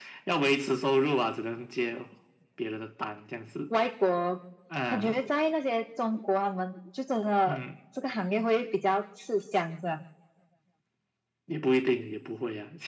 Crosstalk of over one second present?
No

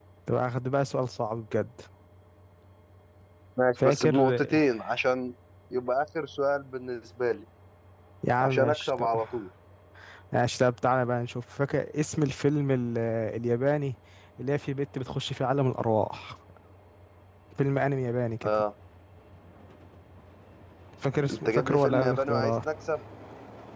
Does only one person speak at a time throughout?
No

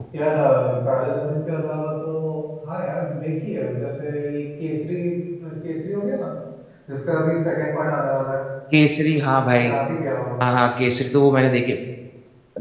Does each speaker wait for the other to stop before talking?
Yes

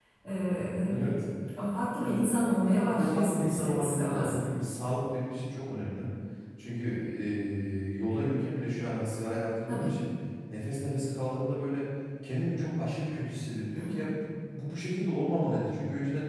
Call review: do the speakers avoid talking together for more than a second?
No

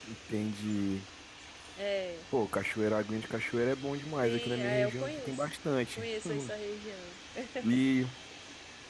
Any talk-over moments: Yes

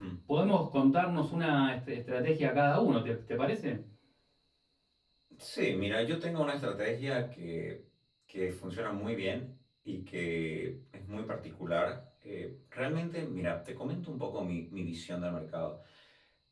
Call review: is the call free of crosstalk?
Yes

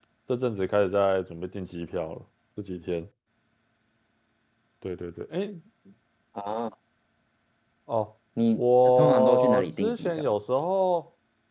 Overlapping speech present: Yes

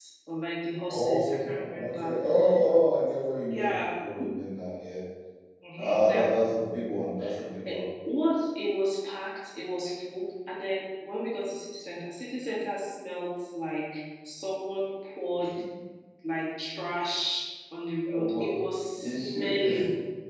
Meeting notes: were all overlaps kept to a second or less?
No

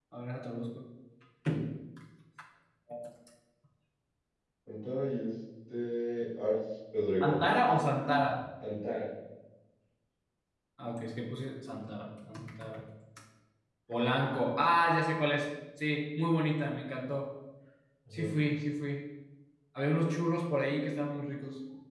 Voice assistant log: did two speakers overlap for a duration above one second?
No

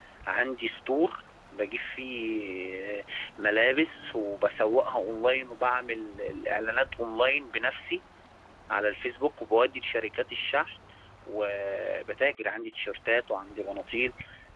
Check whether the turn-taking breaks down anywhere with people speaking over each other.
No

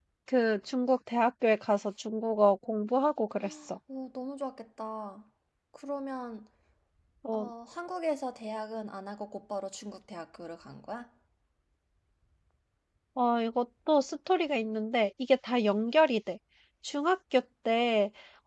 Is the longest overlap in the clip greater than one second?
No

